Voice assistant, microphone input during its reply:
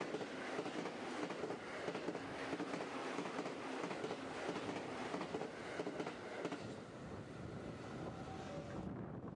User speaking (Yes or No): No